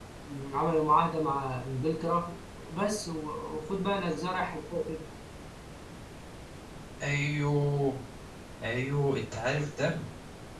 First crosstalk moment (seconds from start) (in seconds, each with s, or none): none